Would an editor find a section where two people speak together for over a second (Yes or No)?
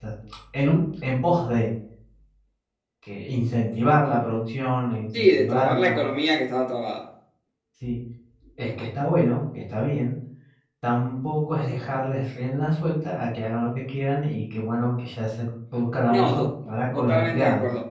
Yes